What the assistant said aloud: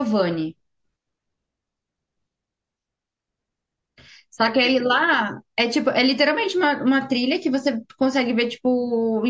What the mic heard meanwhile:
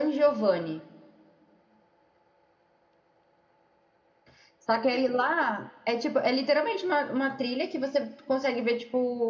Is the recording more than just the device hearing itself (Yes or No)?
No